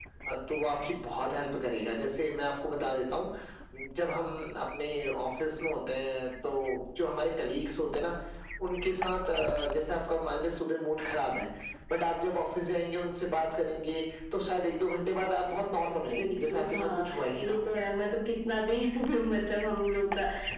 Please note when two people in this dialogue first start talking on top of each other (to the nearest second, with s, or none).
16 s